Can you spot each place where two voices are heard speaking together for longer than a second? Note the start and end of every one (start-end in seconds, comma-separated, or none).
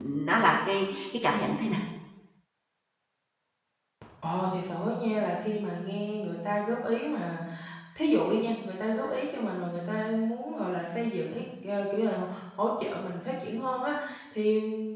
none